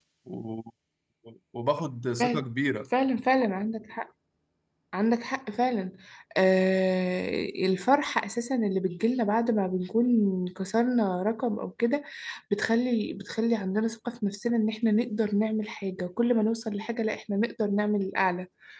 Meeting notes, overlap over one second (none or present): none